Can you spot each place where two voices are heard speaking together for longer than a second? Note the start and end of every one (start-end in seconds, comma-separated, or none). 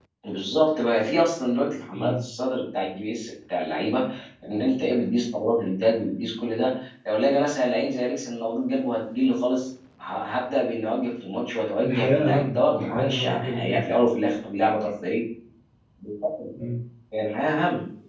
11.8-13.8